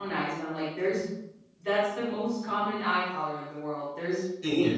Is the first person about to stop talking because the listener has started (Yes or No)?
No